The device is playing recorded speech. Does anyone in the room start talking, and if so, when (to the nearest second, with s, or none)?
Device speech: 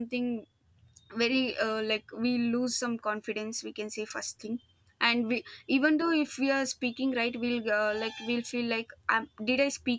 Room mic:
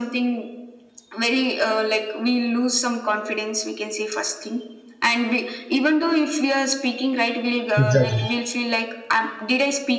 8 s